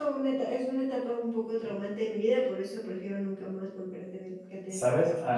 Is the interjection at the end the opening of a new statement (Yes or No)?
Yes